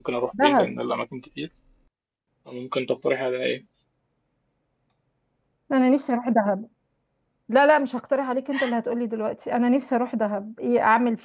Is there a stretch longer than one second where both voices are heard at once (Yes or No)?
No